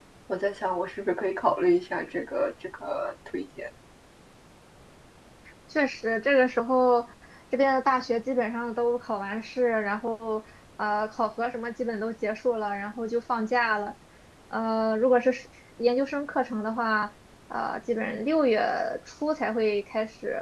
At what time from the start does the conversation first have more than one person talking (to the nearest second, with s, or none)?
none